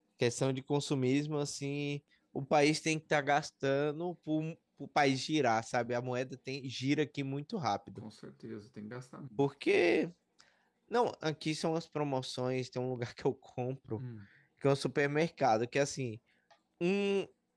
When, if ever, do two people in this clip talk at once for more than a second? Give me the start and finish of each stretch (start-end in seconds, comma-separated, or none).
none